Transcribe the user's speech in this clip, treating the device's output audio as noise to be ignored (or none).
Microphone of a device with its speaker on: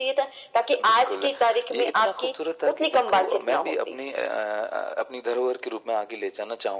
none